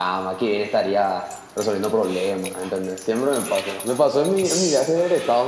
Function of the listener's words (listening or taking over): listening